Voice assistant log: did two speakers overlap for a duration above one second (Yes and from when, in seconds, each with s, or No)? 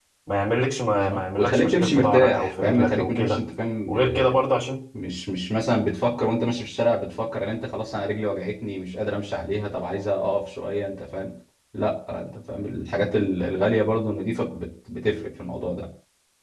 Yes, from 1.1 s